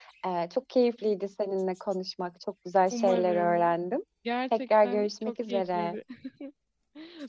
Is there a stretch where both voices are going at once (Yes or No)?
Yes